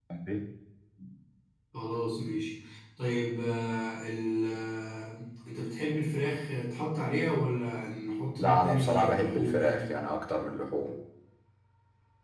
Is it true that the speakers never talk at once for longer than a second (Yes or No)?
No